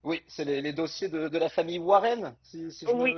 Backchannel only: No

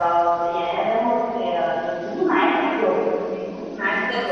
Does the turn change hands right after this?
Yes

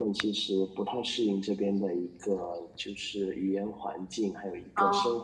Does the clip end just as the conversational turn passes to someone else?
No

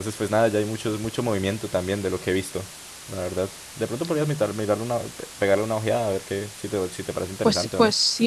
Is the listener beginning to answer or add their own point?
Yes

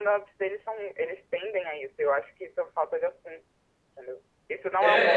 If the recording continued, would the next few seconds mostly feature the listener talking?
Yes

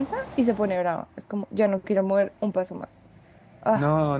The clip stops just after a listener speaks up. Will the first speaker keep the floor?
No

